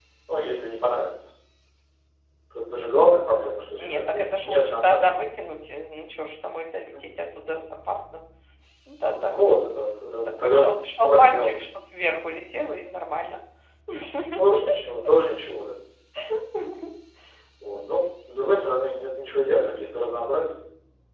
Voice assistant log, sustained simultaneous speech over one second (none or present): present